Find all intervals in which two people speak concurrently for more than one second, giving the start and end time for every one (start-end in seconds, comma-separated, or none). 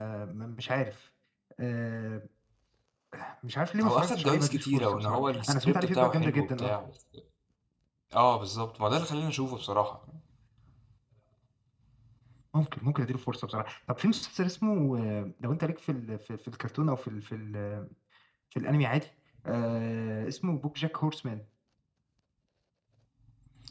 3.8-6.7